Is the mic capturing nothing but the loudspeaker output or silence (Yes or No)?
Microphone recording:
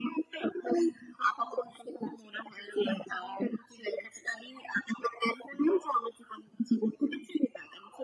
Yes